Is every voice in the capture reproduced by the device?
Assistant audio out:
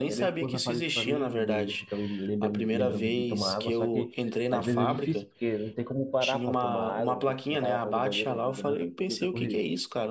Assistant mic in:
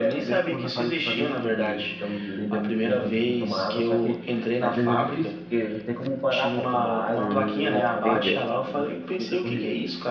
No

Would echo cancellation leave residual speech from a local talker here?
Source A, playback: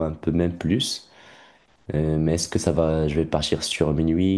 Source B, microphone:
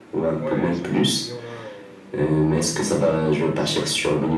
Yes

